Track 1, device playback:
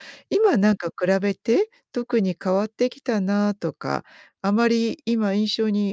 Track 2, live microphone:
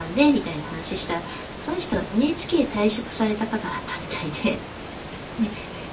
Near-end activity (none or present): present